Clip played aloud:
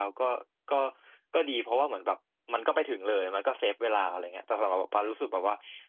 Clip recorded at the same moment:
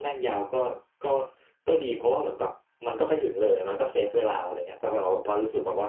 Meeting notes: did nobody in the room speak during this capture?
Yes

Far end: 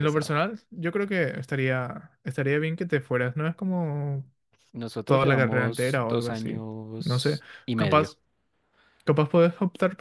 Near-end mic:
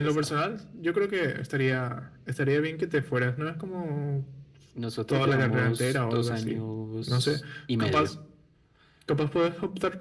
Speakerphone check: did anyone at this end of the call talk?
No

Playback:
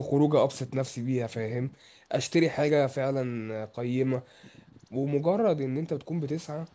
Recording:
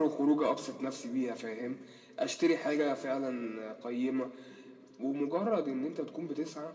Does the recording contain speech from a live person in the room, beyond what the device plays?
No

